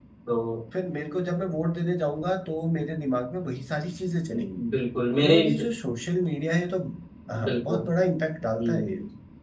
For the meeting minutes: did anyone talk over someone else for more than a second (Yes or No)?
No